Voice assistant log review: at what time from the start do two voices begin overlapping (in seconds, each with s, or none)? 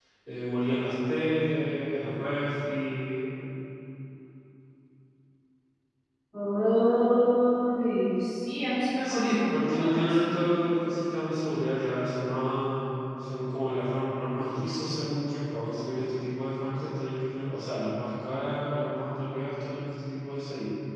9.0 s